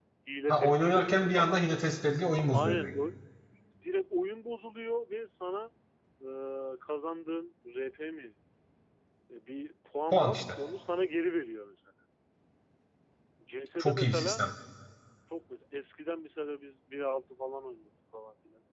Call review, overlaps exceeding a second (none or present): present